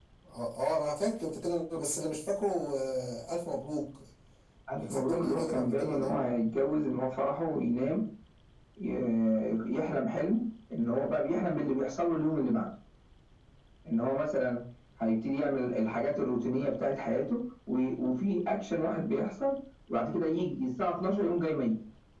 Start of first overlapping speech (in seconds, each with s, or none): 4.8 s